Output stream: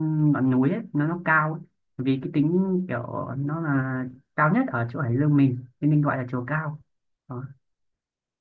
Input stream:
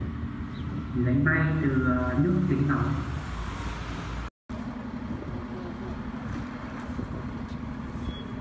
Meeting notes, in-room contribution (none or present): present